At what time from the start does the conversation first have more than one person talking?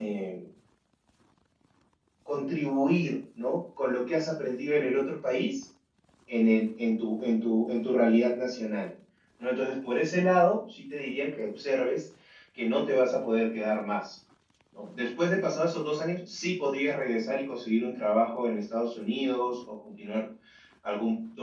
none

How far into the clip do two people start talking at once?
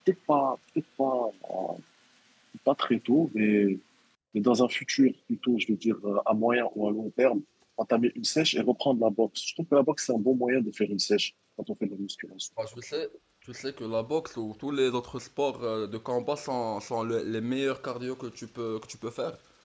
none

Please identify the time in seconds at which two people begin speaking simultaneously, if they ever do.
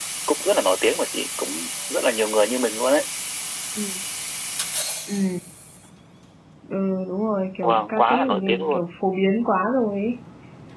7.6 s

